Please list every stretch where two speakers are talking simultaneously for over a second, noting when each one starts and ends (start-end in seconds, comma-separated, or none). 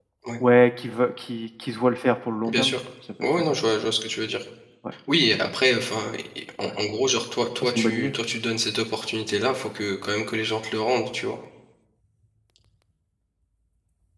none